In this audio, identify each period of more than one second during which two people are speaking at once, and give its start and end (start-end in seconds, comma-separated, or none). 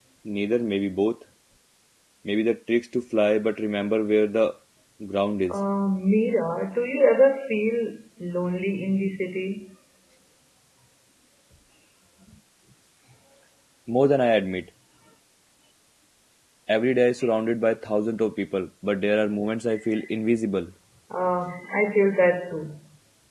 none